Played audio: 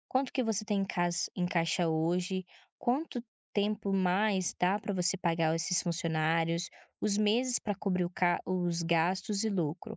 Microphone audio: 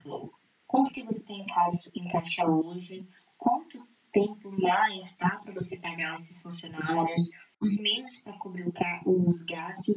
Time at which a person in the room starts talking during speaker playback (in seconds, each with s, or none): none